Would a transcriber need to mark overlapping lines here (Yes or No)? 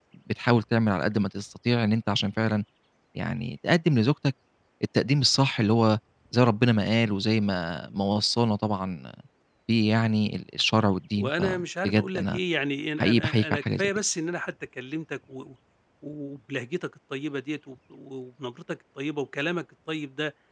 Yes